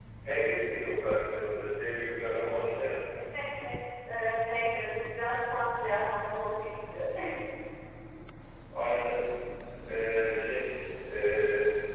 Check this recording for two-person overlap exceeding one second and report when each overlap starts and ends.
none

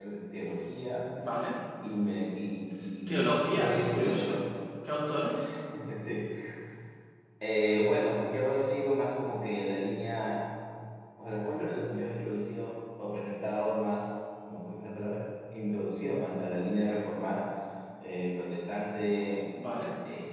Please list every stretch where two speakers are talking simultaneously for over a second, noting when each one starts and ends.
3.1-4.4

